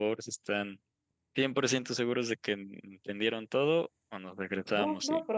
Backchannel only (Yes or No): No